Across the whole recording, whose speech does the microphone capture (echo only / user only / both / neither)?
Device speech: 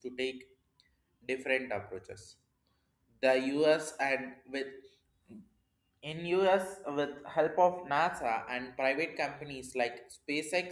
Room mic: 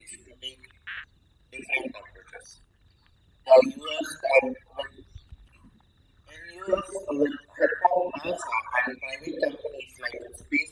echo only